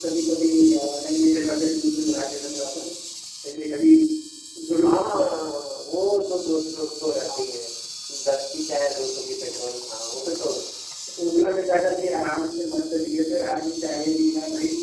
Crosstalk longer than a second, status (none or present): none